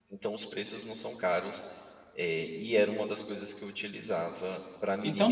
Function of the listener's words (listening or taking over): taking over